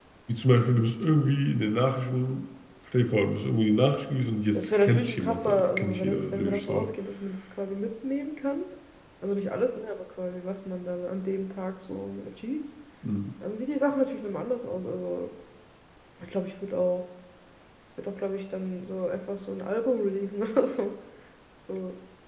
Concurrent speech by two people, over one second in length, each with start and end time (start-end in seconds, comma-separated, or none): 4.5-6.9